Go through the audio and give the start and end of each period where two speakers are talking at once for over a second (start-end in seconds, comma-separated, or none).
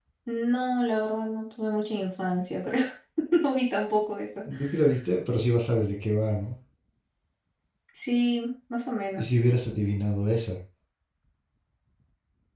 none